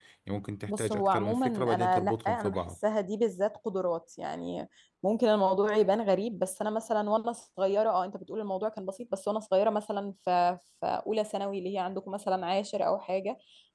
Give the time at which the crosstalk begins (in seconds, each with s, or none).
0.7 s